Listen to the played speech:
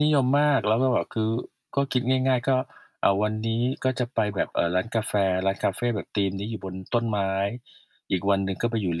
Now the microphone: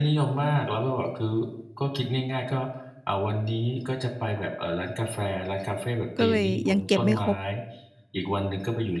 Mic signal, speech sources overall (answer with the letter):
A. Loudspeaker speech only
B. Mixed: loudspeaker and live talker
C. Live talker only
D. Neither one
B